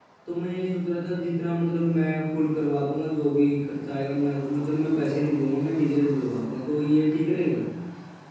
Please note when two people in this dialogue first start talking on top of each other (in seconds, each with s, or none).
none